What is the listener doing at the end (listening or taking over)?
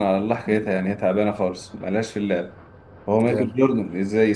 listening